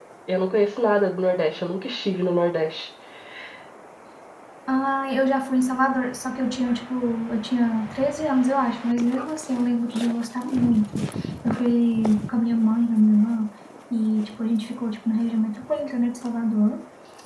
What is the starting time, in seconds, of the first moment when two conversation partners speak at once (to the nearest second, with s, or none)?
none